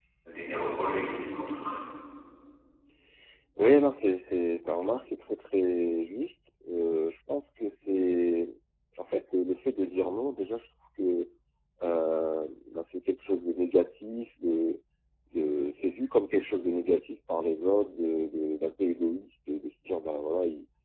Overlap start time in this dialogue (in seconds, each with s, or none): none